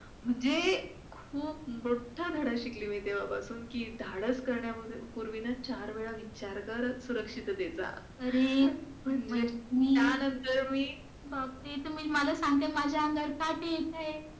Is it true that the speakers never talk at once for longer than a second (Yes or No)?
Yes